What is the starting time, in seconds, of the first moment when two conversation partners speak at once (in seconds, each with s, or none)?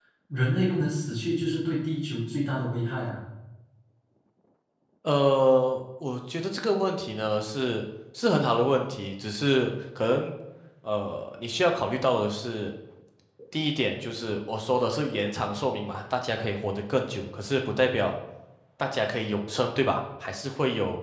none